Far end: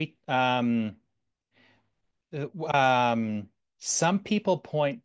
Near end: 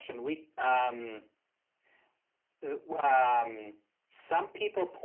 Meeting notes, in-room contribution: none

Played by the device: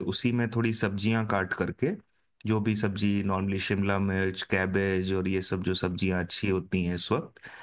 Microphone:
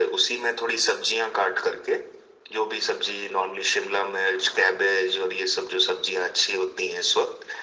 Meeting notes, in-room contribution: none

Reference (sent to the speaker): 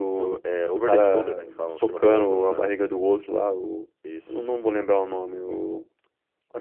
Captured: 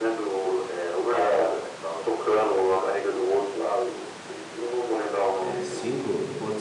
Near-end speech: present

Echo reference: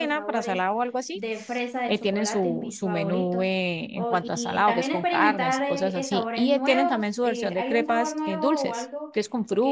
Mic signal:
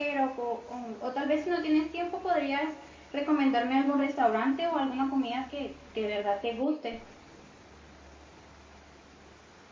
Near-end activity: present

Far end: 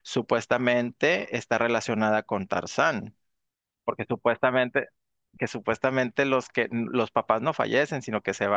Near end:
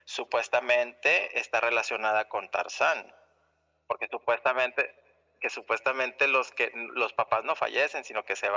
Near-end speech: none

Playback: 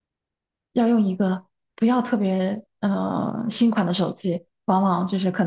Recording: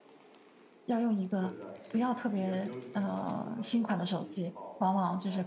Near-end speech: present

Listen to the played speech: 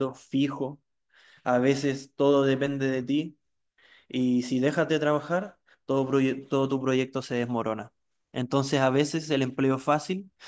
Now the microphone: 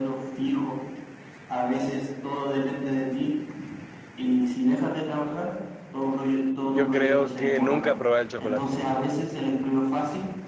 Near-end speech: present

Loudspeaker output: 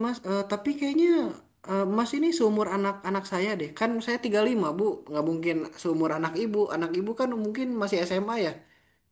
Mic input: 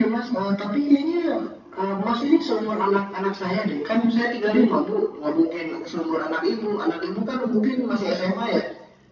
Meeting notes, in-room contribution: none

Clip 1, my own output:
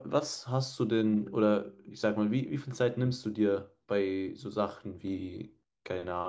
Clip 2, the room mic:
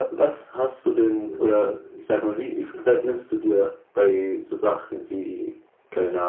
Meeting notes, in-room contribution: none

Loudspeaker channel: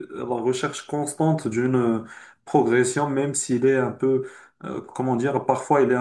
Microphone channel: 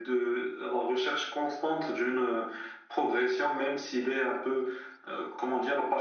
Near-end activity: none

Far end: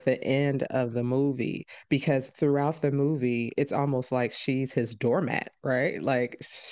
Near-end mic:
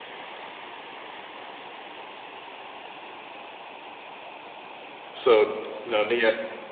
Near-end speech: present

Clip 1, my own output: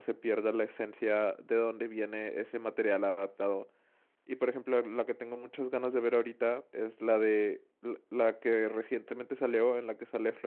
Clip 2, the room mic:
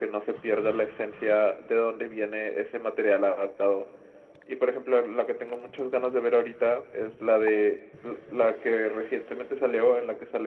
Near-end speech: none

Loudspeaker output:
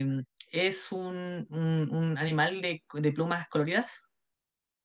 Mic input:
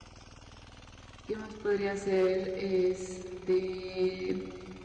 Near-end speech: present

